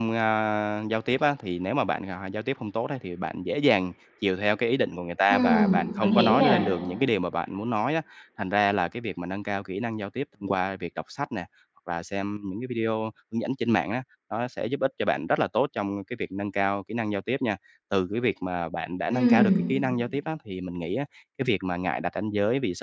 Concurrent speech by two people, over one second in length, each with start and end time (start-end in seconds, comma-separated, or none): 5.3-6.6